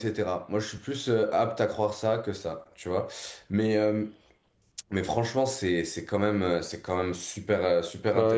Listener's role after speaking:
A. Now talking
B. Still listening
B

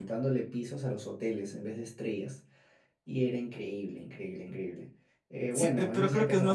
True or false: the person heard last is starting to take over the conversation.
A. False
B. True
B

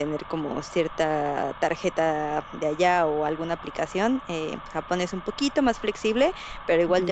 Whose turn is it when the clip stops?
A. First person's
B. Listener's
A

